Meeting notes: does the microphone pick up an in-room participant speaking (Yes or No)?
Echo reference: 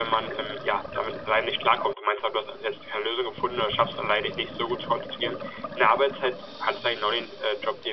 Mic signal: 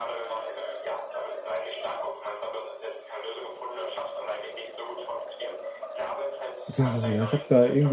Yes